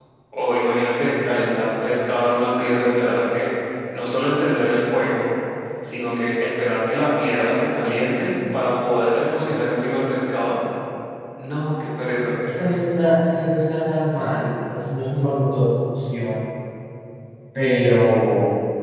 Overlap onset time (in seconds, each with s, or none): none